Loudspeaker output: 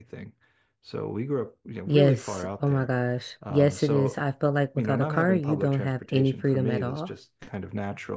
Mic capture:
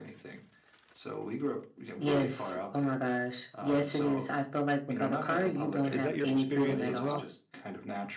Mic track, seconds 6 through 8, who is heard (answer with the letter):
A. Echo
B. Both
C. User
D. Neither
B